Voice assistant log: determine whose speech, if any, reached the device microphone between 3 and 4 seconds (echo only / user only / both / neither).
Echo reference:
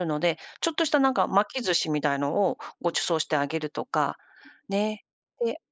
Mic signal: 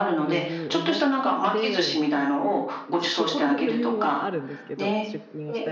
both